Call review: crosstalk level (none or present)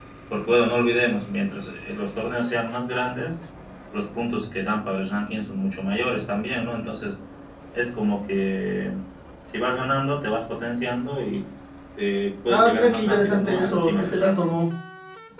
present